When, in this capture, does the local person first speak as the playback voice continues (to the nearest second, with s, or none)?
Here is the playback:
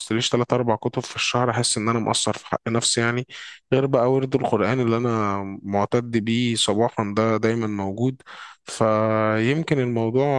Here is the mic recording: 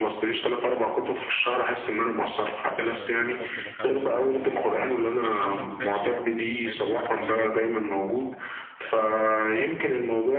3 s